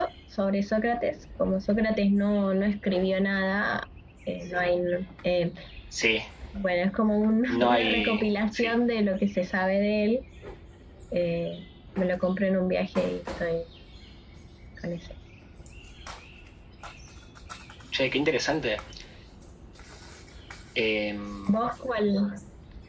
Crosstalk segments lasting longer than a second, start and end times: 7.5-8.7

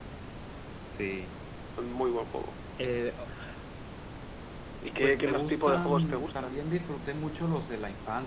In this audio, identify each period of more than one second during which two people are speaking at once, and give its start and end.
5.0-6.7

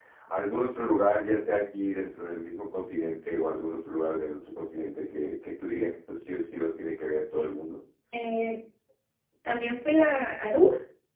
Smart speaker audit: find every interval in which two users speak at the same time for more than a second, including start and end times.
none

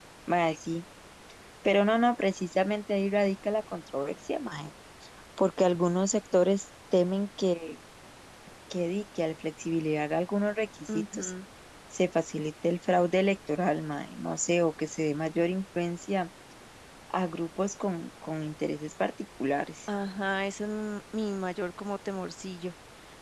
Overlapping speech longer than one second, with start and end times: none

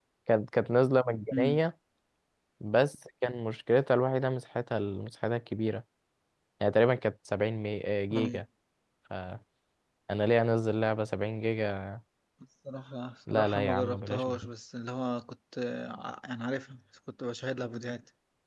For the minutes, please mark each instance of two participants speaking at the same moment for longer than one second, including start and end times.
13.3-14.5

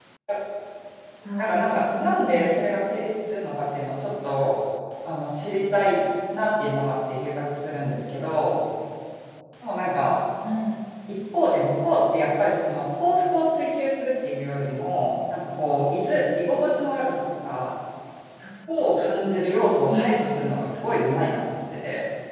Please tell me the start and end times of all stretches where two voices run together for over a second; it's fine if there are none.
1.4-2.6

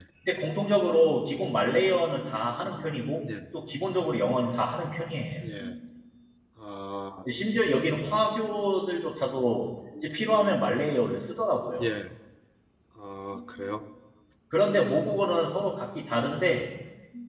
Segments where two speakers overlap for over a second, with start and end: none

